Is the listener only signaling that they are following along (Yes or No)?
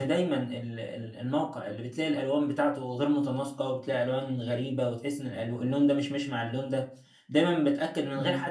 Yes